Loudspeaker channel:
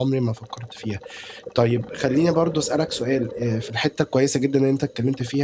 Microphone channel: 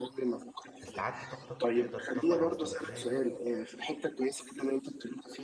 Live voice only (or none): استعَدِّت طاقتَك، تقدَر تطبِّق الإستراتيجية دي